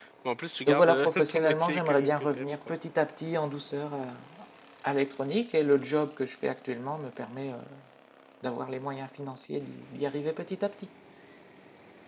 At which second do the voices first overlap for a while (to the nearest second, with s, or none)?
1 s